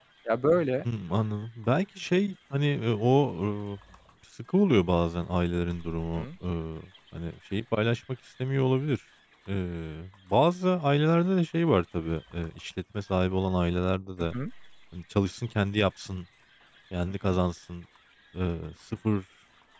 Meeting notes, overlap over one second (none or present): none